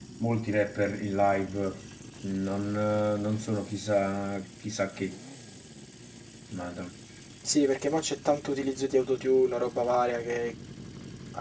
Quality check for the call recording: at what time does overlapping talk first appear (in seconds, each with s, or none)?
none